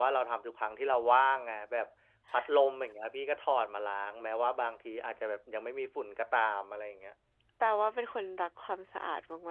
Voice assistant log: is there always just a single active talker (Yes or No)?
Yes